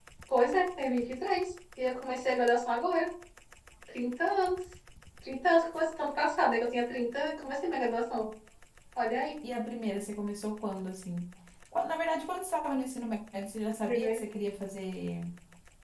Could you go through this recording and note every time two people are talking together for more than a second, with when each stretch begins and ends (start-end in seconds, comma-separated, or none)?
none